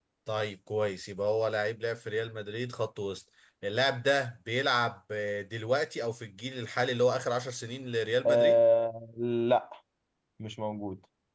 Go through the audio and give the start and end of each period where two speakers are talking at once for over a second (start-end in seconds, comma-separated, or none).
none